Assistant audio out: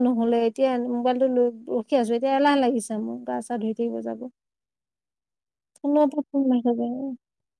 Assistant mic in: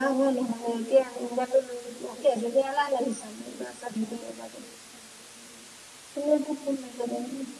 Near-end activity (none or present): none